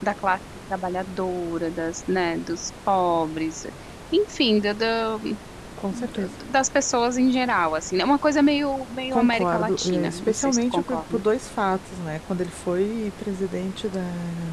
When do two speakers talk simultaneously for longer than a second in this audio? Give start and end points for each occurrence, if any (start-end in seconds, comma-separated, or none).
9.1-11.2